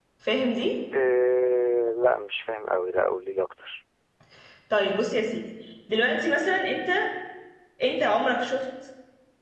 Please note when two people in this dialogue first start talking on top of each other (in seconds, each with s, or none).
none